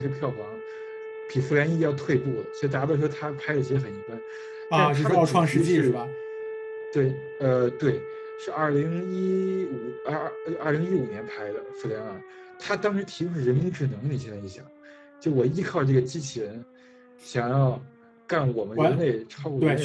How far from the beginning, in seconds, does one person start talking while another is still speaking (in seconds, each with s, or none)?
4.7 s